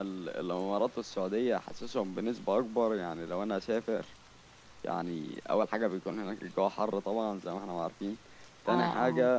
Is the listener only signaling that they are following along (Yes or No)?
Yes